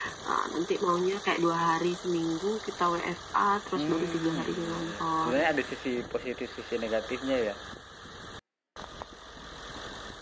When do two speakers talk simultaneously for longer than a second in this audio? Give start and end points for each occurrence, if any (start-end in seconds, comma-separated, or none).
3.8-5.3